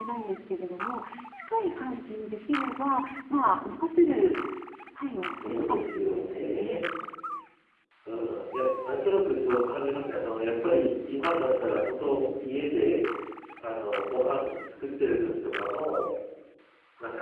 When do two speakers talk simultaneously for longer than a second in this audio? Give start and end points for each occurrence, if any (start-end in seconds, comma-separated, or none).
5.3-6.8